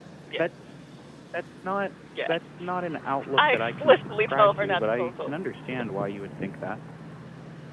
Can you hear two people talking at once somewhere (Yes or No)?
Yes